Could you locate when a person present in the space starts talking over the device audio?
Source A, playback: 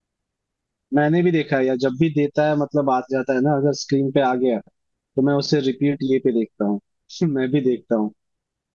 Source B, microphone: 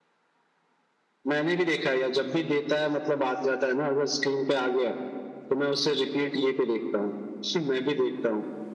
none

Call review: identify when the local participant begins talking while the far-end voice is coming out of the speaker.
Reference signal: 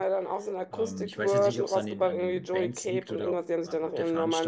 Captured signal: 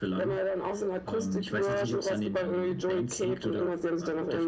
none

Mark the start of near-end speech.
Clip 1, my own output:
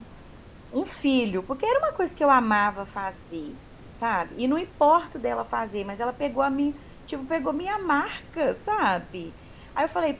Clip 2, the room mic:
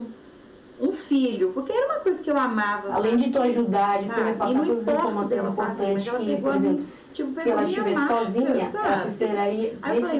2.9 s

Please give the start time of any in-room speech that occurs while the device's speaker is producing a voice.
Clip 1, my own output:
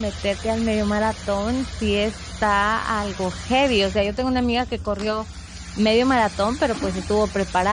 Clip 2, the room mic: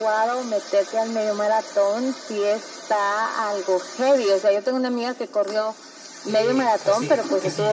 6.2 s

